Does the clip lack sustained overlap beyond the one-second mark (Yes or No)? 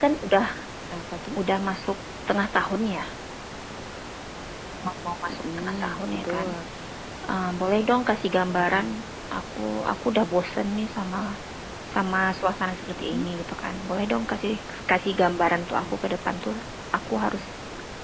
No